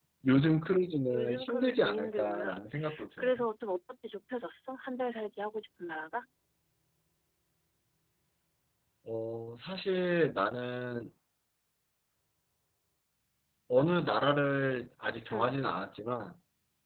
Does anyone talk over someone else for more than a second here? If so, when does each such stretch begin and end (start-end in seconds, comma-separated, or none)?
1.1-2.5